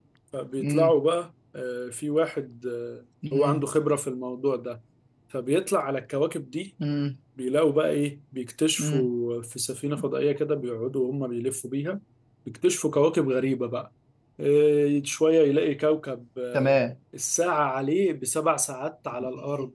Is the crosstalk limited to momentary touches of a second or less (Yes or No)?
Yes